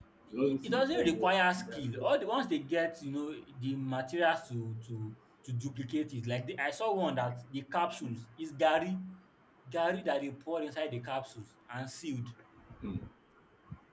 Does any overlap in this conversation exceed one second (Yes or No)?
Yes